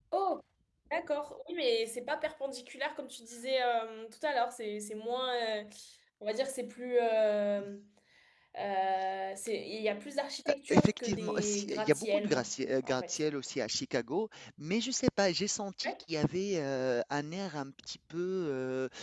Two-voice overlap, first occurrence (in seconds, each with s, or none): 10.4 s